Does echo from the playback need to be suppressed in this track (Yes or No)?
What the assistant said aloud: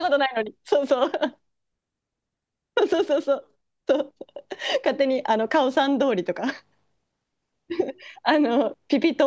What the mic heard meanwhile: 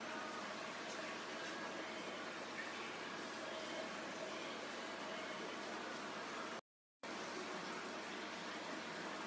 No